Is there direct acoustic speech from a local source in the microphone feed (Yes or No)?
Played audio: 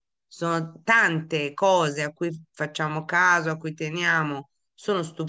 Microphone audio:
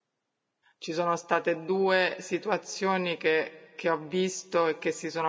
Yes